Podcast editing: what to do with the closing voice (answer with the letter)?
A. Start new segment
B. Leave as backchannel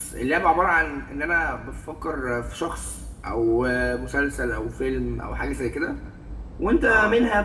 B